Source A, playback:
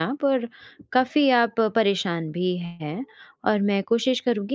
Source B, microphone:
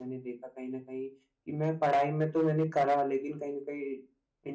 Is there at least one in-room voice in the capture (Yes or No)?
Yes